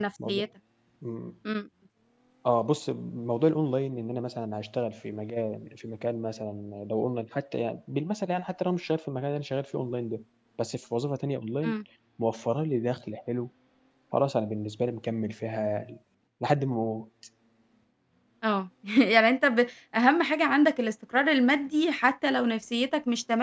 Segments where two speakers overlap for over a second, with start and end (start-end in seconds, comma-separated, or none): none